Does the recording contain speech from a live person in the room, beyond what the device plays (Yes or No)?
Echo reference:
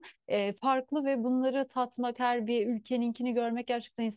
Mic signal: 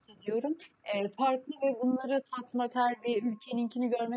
No